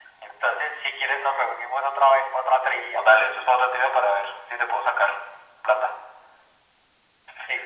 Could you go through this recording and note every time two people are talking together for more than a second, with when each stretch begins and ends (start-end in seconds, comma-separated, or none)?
none